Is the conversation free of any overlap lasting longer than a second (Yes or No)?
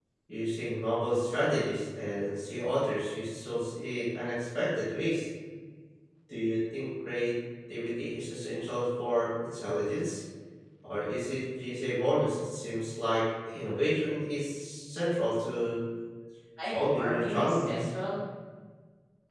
No